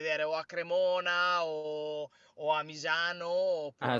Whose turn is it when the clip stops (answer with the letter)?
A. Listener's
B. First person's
A